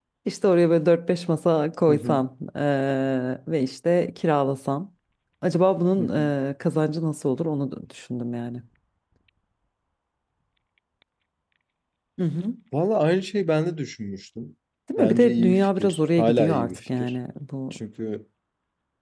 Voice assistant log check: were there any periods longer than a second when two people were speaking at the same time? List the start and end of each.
15.0-17.1

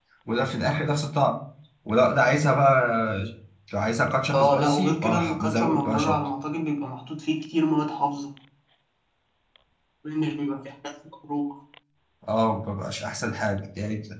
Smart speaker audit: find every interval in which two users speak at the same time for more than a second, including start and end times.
4.3-6.2

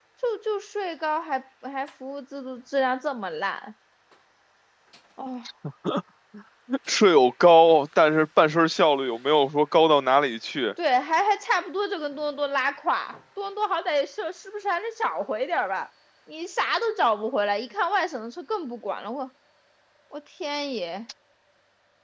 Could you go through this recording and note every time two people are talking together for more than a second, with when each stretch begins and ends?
none

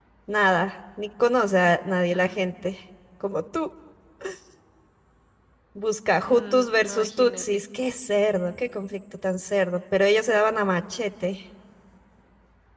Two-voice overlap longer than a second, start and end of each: 6.2-7.6

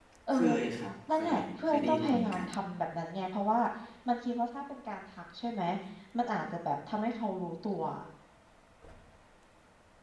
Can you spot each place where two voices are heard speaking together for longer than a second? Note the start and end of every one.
1.1-2.5

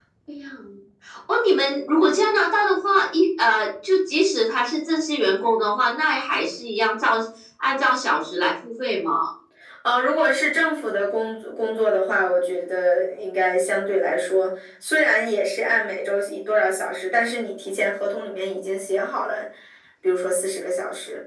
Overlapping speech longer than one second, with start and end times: none

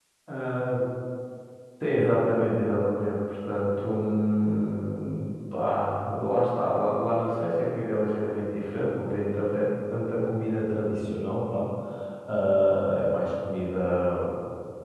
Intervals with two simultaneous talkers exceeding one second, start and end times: none

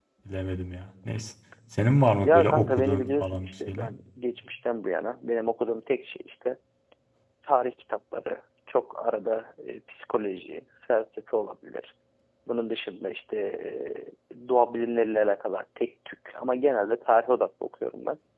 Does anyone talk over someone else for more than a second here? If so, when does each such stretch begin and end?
2.2-3.9

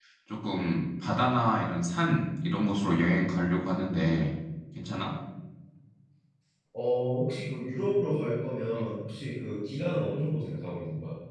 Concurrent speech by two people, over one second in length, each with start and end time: none

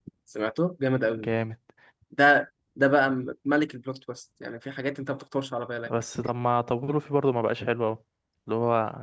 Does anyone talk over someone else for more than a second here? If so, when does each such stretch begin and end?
none

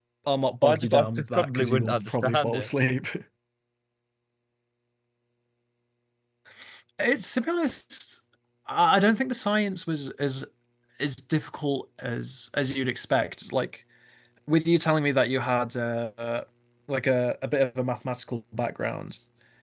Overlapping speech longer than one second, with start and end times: 0.6-2.7

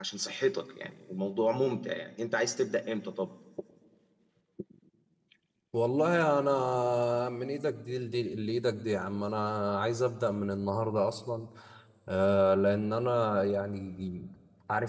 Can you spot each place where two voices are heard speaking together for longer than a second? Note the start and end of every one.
none

